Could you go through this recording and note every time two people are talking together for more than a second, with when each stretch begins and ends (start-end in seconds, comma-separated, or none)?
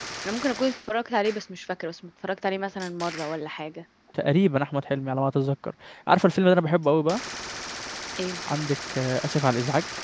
none